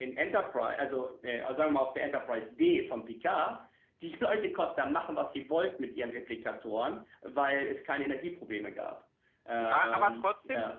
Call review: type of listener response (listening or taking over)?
taking over